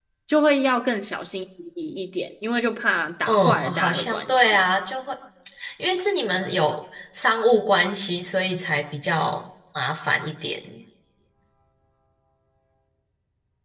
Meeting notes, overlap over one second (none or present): present